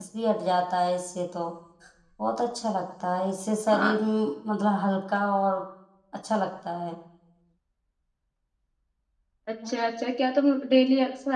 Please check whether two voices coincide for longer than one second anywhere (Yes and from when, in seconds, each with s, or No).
No